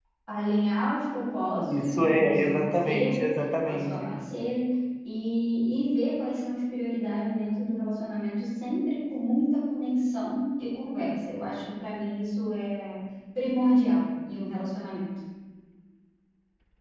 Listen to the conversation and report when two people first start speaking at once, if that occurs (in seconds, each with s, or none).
1.6 s